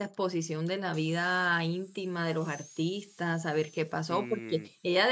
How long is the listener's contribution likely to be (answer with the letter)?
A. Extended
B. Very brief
B